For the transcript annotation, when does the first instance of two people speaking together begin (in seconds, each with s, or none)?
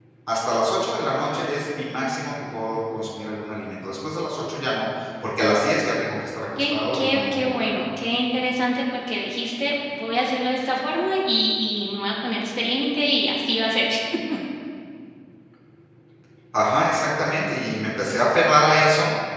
6.6 s